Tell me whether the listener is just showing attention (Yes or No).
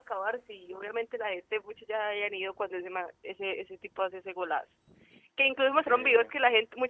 Yes